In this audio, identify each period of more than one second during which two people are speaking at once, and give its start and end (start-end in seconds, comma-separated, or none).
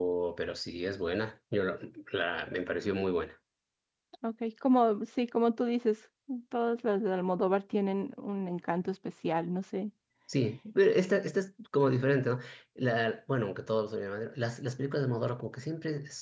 none